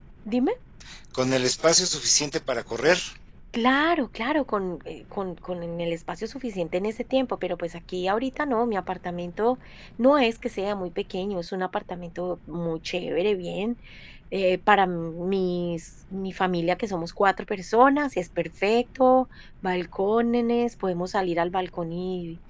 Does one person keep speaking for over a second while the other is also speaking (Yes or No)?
No